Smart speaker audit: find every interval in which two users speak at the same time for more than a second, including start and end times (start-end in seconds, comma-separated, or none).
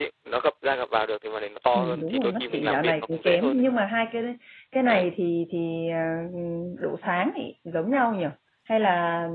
1.7-3.6